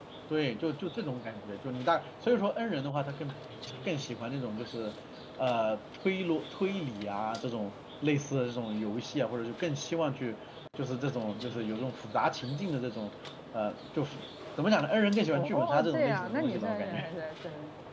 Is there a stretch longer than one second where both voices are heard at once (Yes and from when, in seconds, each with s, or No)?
Yes, from 15.3 s